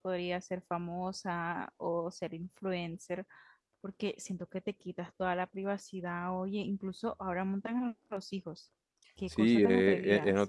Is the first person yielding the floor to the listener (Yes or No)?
Yes